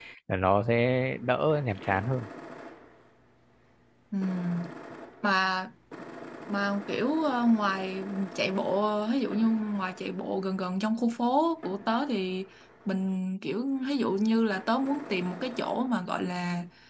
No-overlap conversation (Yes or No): Yes